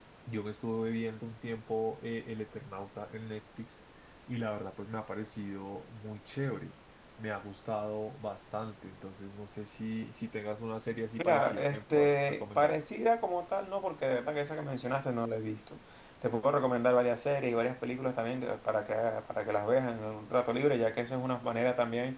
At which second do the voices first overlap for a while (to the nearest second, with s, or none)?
11 s